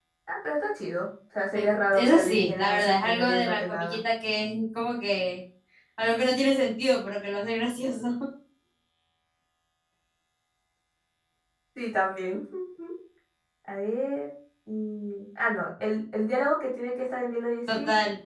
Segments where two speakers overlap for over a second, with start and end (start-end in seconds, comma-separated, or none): 1.5-4.0